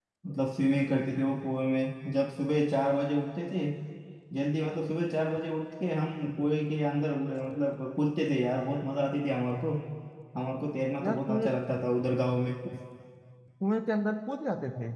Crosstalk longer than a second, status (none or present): none